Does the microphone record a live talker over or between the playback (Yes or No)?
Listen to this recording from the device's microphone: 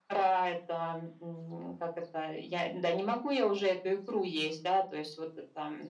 No